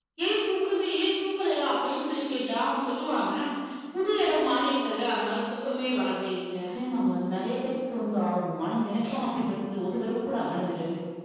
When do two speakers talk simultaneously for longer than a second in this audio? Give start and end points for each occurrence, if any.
none

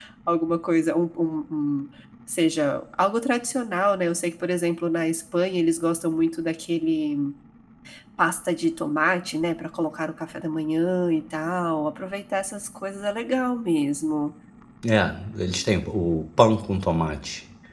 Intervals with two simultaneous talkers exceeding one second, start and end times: none

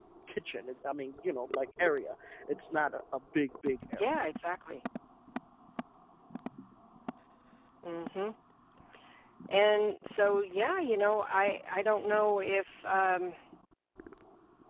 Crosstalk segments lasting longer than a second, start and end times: none

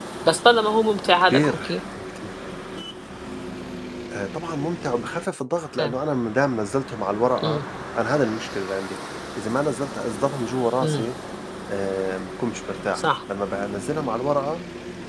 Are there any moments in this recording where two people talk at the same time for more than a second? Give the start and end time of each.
none

